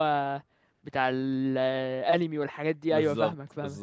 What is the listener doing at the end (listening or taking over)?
taking over